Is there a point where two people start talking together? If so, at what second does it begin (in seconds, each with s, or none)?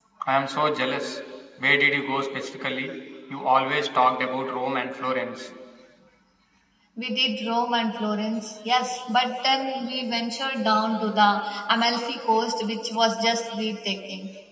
none